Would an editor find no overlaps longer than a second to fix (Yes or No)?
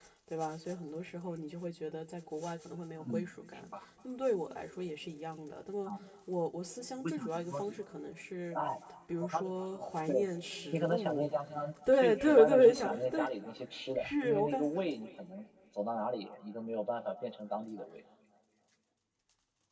No